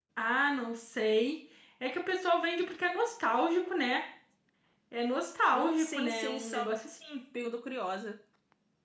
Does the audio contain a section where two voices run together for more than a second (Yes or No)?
Yes